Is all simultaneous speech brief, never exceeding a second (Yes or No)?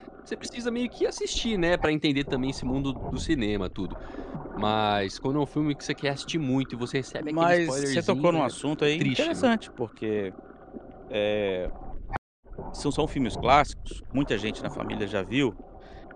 No